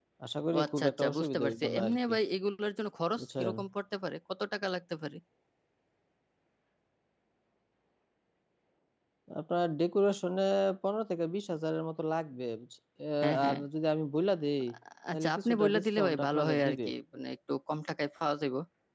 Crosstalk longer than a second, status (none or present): present